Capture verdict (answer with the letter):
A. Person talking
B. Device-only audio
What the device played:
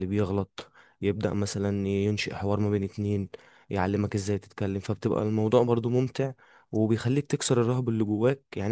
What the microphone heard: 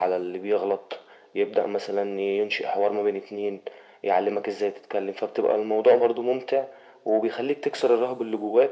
B